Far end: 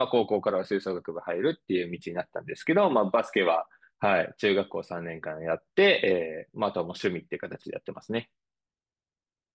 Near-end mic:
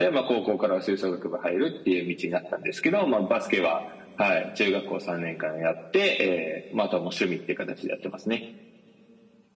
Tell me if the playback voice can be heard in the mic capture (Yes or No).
Yes